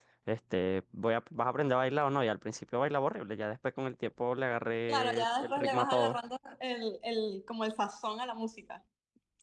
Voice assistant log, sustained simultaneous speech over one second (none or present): present